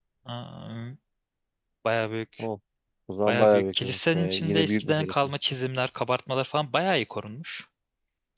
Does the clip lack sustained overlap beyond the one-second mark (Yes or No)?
No